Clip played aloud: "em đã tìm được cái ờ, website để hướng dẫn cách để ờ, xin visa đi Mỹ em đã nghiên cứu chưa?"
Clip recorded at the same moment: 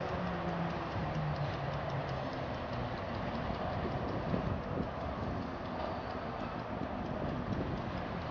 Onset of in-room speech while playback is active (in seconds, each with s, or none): none